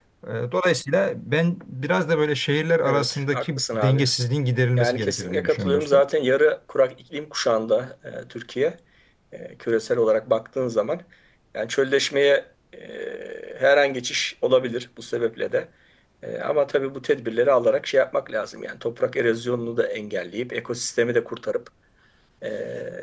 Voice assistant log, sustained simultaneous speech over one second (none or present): present